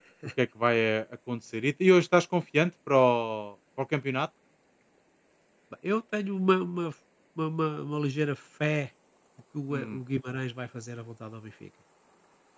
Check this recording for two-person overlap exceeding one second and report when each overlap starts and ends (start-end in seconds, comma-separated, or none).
none